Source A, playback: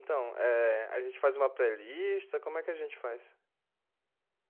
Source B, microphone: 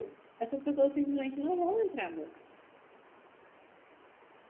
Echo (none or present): none